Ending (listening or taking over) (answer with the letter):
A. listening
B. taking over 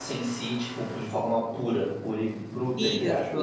B